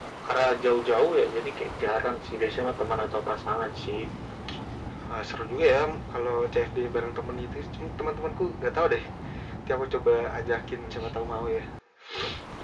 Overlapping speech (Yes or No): No